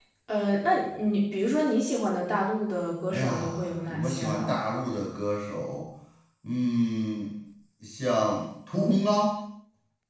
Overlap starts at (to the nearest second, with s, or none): 3 s